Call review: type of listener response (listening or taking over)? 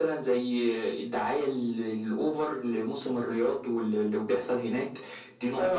taking over